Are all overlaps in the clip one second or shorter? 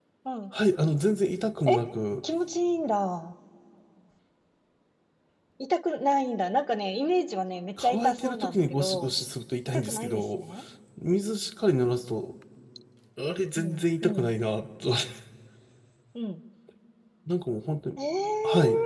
No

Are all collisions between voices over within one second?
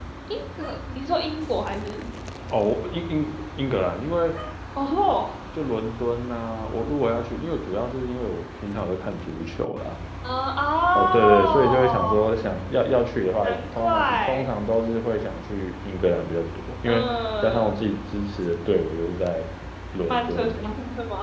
No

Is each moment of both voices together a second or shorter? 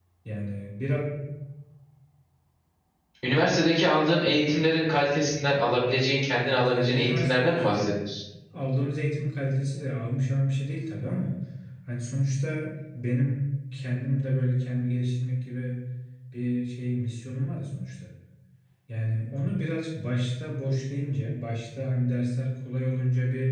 No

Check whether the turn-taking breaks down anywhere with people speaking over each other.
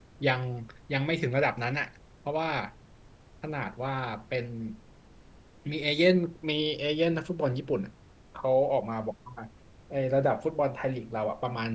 No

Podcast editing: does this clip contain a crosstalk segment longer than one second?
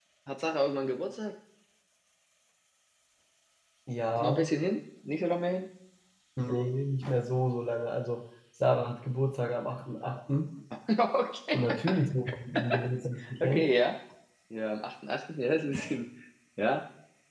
No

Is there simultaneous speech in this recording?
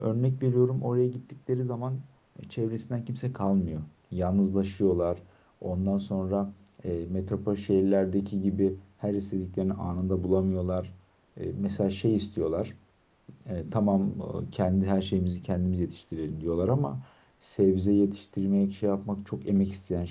No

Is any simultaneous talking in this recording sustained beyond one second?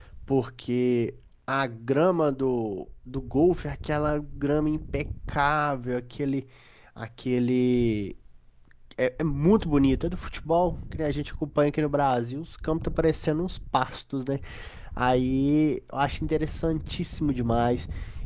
No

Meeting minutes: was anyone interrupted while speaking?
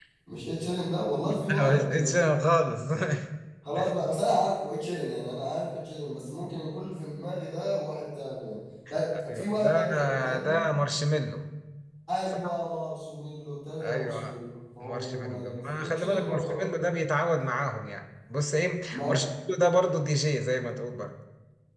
Yes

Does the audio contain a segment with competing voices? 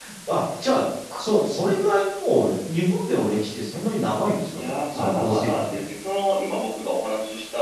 Yes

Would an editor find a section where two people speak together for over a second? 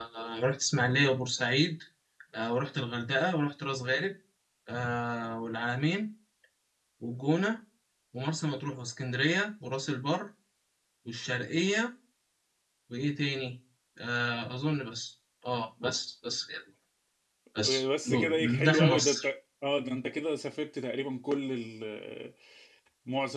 Yes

